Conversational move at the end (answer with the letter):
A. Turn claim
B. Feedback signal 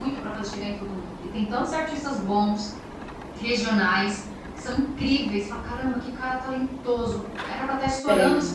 B